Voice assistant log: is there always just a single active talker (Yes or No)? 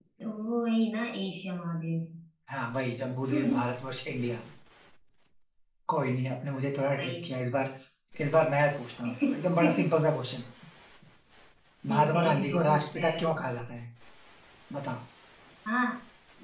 No